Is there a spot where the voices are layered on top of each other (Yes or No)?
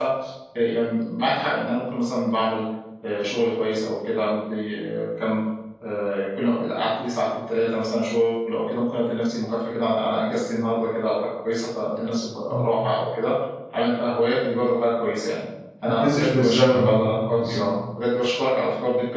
Yes